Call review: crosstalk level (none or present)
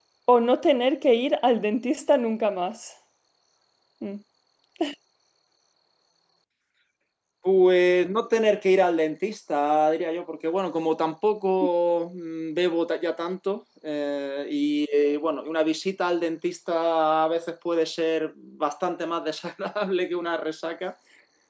none